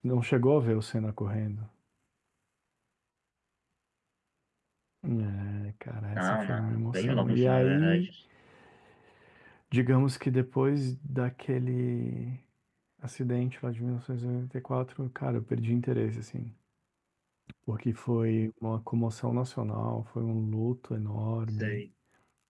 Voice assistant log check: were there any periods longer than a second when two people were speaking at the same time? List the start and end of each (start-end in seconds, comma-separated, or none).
6.2-8.1